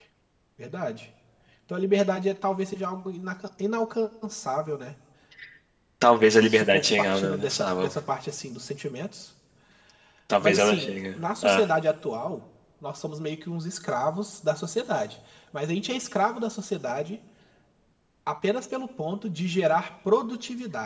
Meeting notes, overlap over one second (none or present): present